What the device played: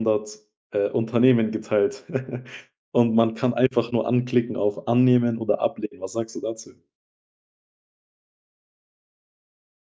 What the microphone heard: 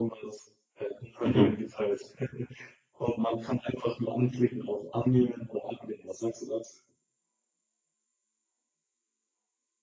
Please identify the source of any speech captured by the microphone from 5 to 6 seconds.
echo only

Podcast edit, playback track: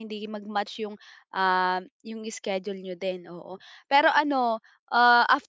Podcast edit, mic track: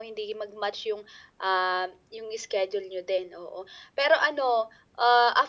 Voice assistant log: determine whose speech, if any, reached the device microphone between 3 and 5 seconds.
echo only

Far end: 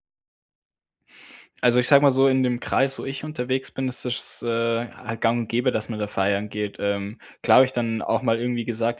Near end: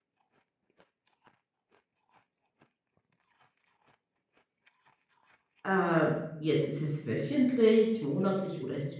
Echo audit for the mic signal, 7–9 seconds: user only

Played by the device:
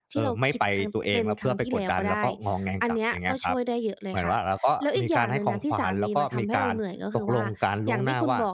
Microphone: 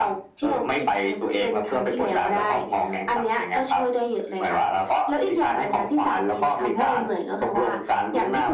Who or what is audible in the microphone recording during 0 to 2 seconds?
echo only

